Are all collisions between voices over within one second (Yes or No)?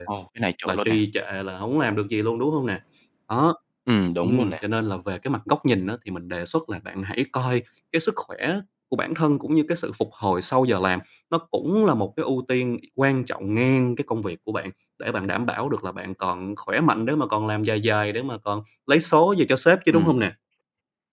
Yes